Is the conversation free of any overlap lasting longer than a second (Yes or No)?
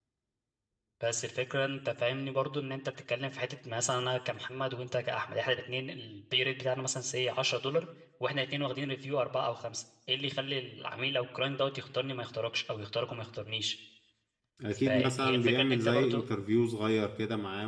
No